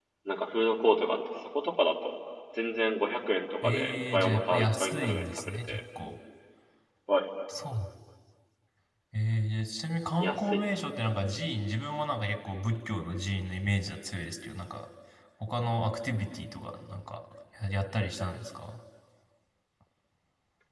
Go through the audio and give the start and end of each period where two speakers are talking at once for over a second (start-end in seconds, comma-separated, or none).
3.6-5.8